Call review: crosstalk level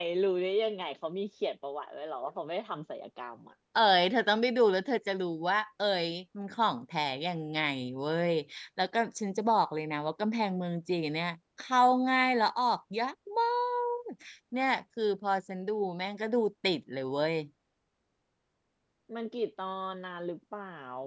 none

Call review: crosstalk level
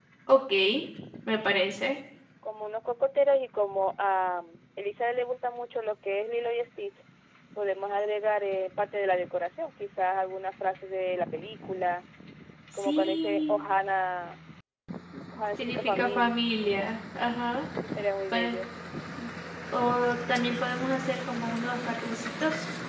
present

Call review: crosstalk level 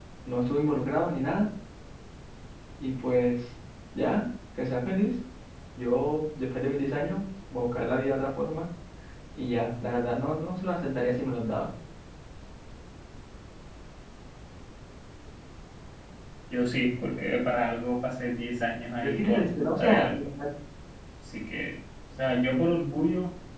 present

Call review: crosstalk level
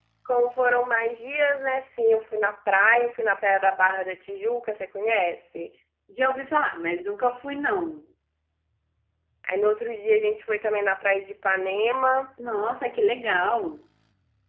none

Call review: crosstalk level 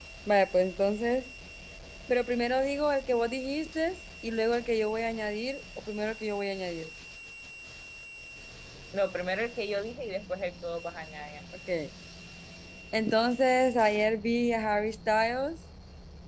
none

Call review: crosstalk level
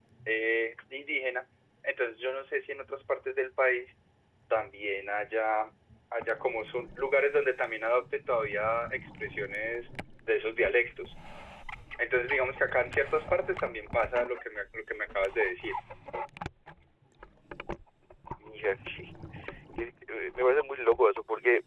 none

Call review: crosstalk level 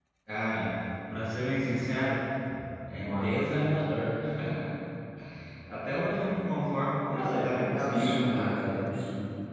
present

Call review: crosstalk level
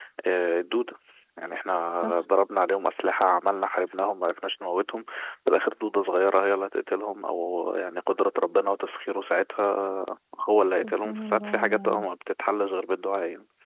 present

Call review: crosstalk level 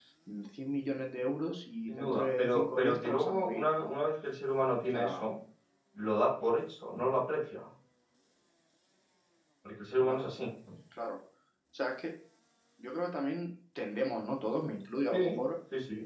present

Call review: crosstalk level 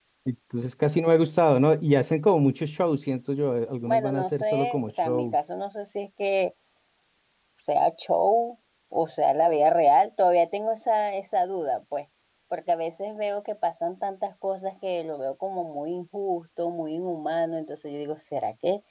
present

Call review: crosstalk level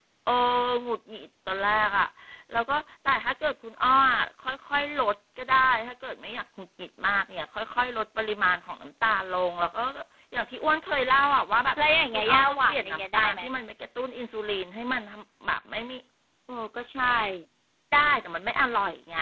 present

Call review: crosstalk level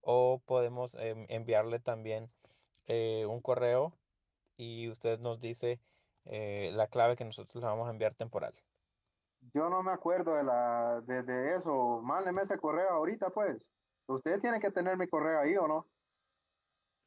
none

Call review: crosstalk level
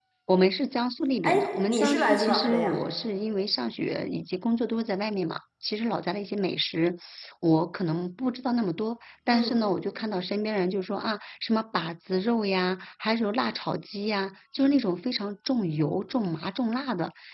present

